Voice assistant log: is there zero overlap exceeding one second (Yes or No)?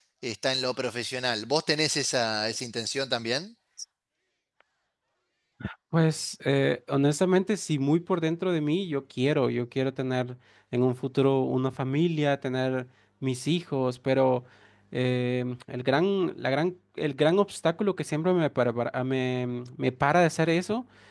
Yes